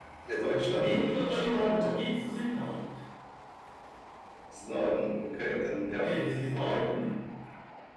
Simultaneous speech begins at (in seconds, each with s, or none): 0.5 s